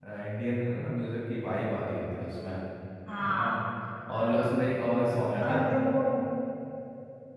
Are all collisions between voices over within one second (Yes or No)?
Yes